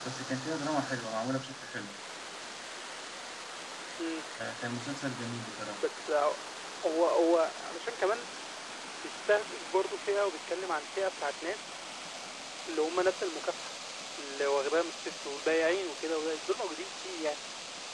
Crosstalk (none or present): none